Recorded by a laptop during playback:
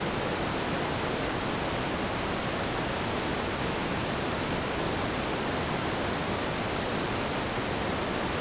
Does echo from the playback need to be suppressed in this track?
No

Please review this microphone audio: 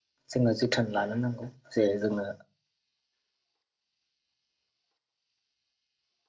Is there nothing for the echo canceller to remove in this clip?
Yes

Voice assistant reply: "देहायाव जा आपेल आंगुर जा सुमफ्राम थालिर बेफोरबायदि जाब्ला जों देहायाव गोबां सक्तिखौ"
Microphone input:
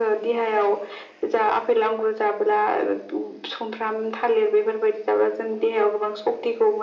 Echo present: Yes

